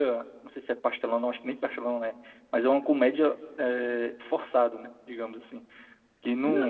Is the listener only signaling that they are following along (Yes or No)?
No